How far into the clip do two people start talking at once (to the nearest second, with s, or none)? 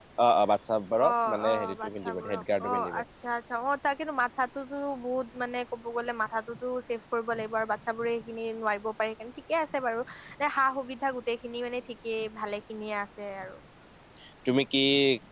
1 s